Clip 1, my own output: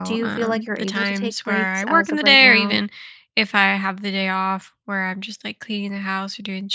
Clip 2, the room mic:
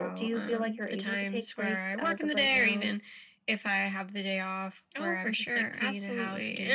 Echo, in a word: present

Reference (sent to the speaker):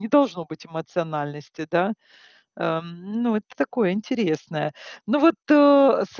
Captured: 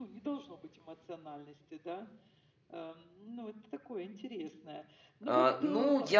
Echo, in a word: present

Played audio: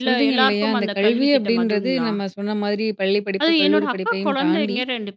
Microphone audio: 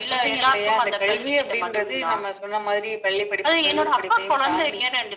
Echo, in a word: present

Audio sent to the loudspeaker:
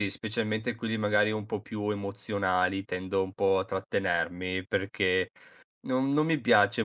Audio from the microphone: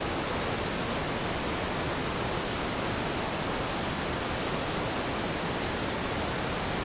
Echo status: none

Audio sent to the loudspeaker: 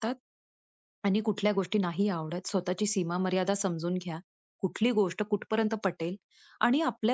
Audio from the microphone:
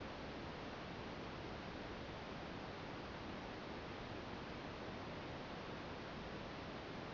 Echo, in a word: none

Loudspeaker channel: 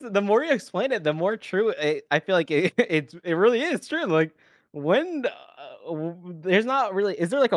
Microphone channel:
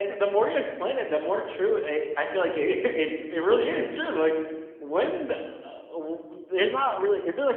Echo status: present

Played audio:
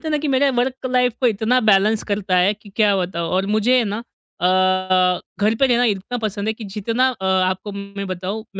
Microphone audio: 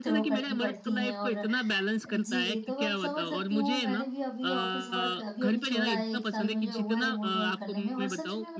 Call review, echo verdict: present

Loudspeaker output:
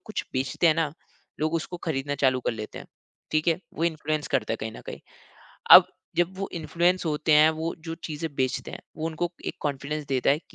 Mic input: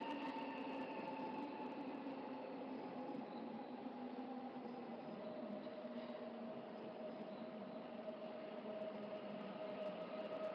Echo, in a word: none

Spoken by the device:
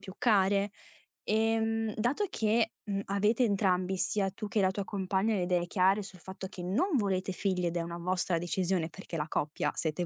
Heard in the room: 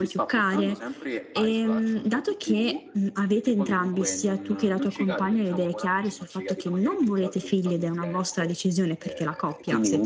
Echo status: present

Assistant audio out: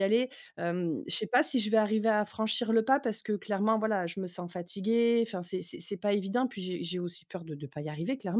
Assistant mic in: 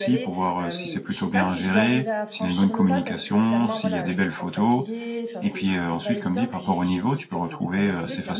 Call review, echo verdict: present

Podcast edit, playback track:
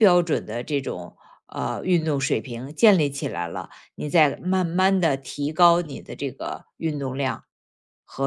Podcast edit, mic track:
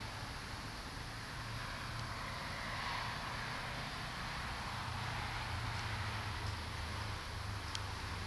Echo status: none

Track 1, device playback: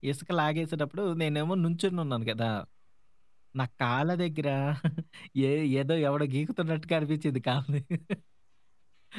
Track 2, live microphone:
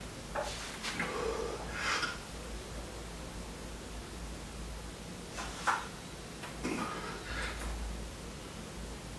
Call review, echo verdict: none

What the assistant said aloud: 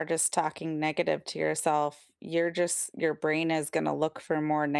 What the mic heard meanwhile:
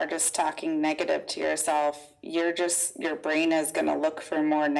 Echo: present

